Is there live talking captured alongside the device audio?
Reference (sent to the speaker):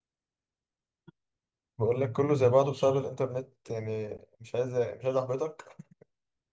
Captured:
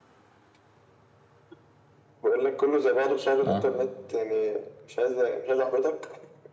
Yes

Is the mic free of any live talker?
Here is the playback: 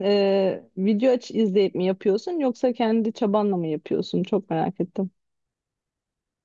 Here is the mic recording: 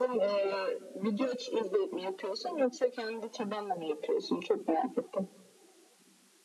Yes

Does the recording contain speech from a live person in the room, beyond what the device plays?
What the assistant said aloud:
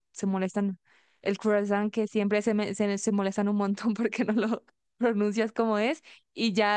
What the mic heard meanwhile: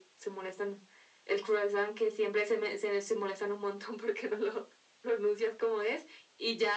No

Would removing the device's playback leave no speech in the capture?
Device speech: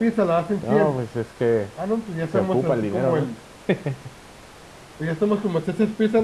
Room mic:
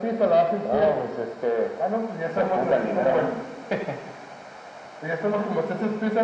Yes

